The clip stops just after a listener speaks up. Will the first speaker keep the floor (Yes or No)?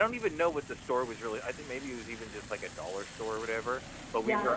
Yes